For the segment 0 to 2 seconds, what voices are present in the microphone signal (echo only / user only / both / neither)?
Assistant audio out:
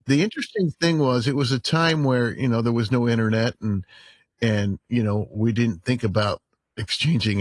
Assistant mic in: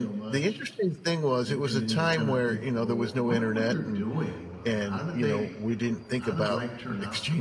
both